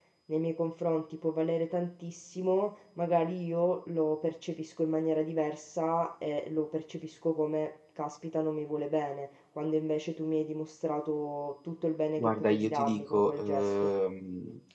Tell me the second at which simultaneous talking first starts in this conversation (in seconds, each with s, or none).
12.2 s